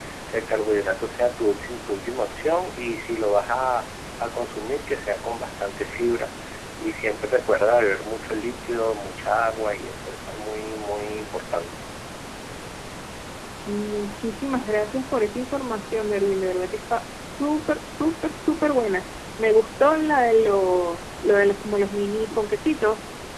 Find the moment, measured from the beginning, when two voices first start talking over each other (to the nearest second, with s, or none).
none